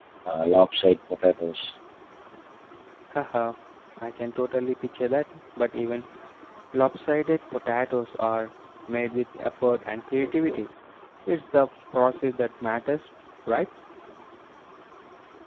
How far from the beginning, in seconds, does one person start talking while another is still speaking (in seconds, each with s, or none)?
none